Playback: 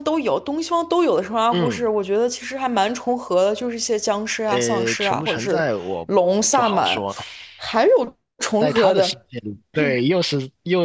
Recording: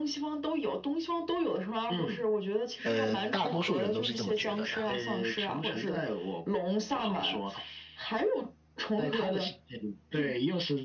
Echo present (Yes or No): Yes